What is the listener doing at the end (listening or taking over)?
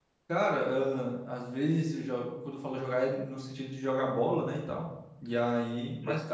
listening